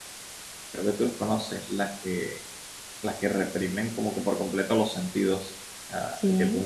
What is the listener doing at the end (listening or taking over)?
listening